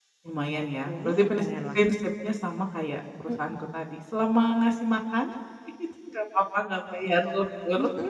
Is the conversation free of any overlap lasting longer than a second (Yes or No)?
No